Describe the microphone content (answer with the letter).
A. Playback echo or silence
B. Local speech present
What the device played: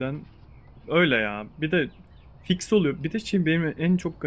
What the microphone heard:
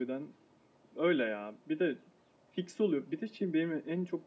A